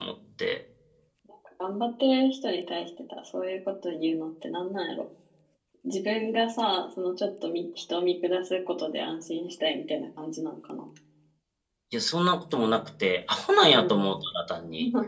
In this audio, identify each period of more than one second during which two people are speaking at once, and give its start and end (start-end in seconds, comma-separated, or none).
none